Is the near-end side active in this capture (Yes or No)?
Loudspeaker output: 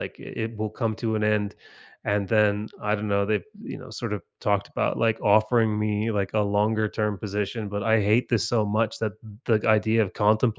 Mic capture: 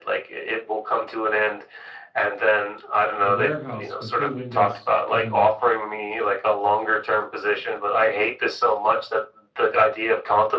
Yes